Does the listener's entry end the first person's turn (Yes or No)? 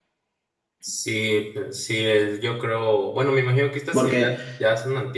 No